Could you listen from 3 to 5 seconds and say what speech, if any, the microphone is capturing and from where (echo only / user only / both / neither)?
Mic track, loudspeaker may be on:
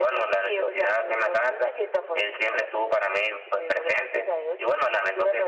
echo only